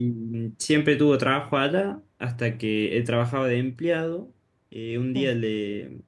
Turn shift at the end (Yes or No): No